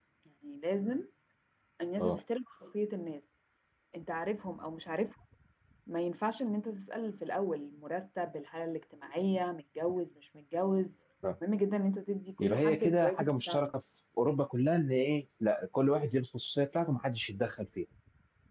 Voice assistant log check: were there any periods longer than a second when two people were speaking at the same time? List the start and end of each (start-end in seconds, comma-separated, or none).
12.4-13.6